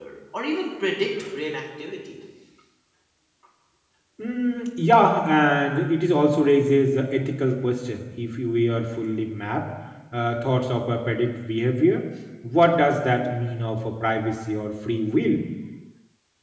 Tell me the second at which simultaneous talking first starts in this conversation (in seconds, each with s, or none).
none